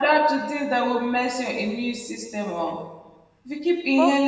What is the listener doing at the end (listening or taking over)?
listening